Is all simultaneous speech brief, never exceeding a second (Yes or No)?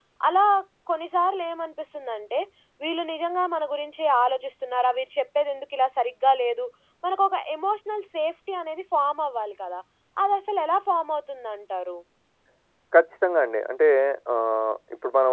Yes